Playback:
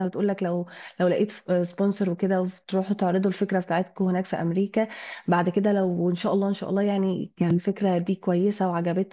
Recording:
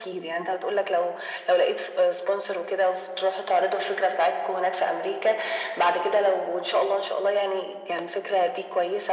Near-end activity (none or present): none